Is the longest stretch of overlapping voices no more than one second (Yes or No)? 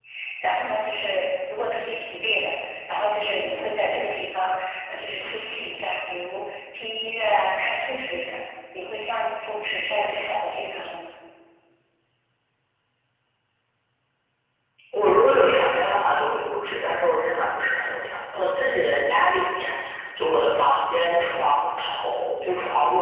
Yes